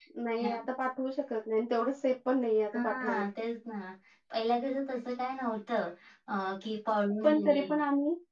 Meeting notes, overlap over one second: none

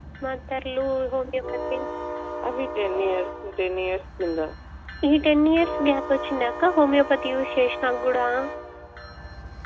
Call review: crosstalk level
none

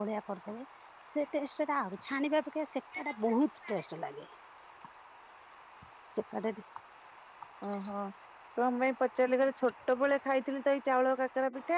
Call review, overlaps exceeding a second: none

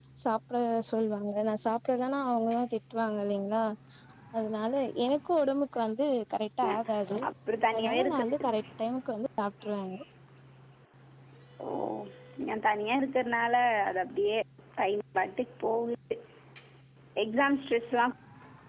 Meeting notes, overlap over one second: none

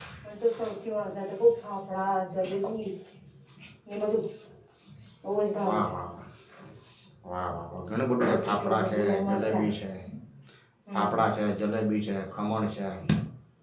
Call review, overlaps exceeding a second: present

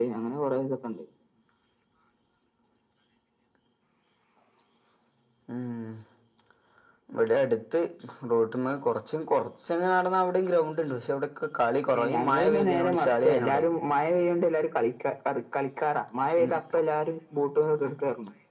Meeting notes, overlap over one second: present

